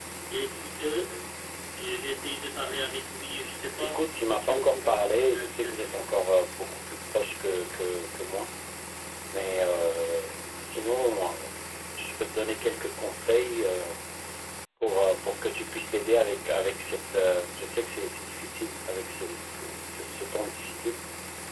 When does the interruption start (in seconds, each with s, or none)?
3.8 s